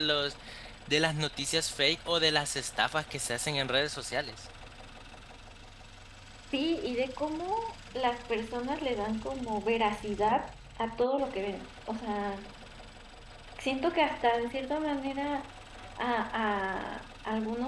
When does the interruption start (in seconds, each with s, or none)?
none